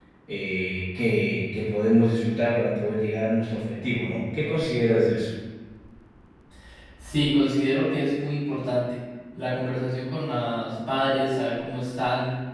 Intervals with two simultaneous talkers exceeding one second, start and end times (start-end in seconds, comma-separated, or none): none